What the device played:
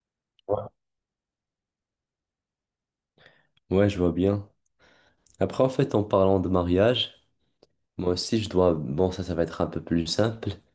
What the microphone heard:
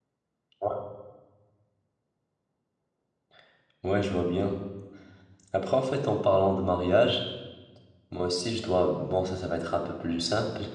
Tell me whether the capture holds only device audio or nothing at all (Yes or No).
Yes